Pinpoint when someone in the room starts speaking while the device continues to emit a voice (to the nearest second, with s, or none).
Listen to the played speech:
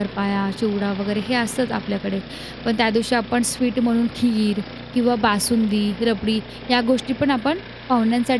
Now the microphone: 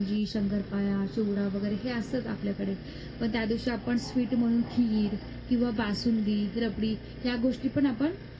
none